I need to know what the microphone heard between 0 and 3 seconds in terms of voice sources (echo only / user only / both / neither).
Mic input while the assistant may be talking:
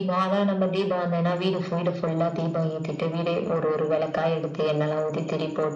echo only